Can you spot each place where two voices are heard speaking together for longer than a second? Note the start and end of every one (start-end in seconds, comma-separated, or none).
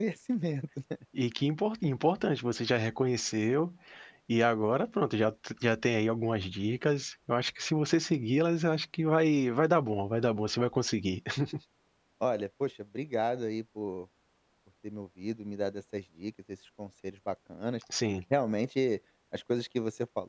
none